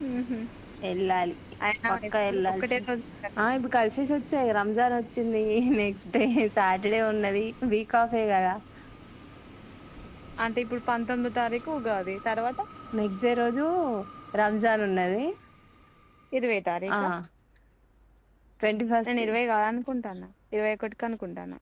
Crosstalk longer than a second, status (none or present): none